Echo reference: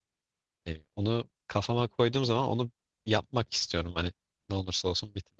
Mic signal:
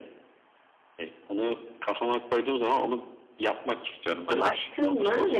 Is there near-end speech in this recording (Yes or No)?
Yes